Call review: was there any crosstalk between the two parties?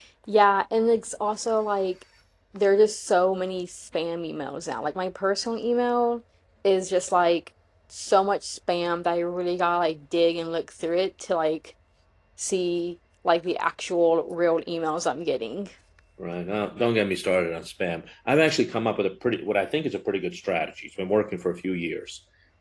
No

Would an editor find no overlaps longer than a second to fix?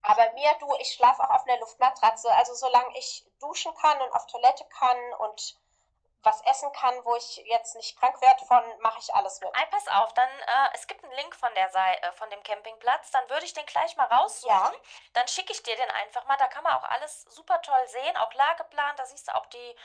Yes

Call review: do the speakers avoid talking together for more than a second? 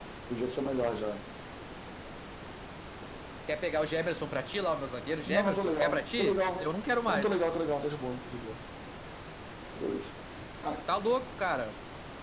No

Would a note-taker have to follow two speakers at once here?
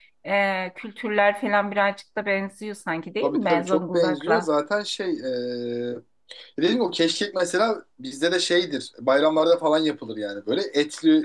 Yes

